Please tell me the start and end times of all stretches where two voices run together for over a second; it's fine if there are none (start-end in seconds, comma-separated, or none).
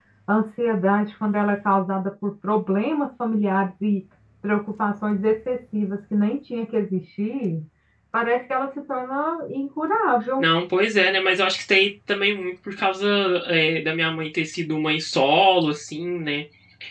none